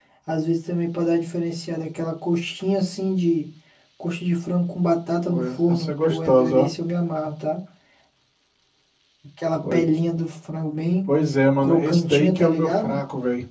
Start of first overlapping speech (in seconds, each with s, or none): 5.3 s